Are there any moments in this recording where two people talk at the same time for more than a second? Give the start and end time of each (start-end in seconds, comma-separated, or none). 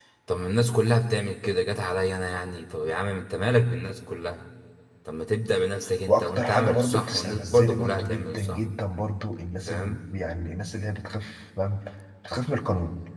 6.1-8.6